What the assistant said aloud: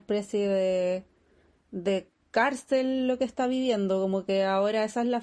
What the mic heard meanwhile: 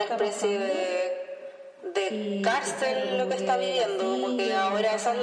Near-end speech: present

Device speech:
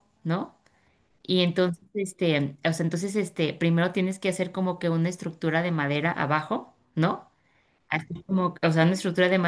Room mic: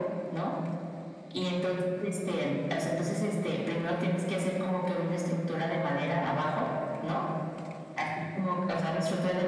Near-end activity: none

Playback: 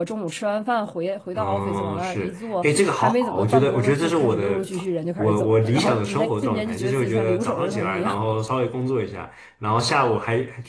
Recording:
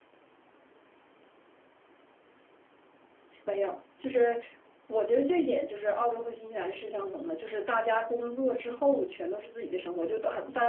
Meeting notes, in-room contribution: present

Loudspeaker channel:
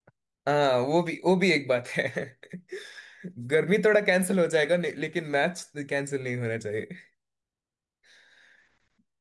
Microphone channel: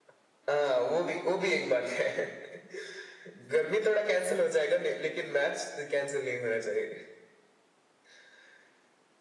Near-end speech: none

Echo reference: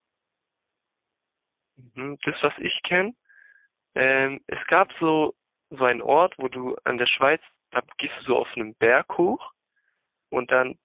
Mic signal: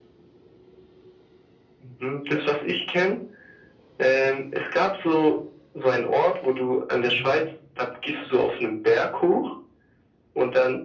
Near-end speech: present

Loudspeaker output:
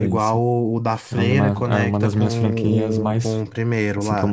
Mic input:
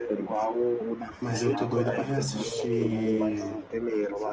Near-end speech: present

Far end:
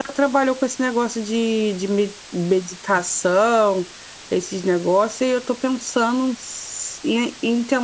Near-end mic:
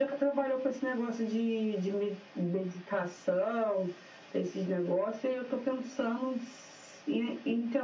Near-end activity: none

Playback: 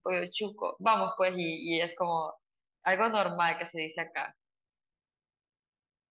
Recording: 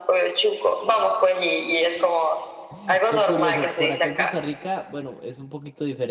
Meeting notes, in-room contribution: present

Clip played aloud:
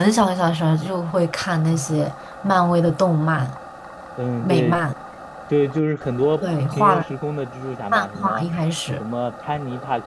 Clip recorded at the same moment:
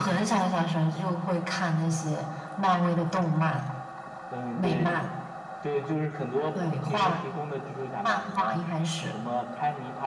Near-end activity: none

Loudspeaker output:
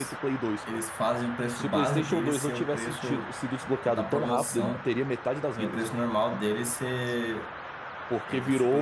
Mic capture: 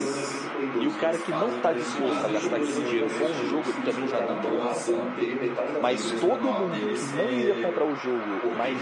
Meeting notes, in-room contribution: present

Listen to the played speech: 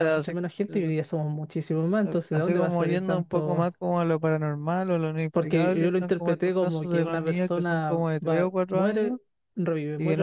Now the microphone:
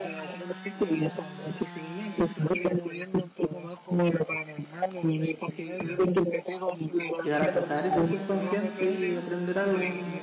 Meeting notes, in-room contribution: present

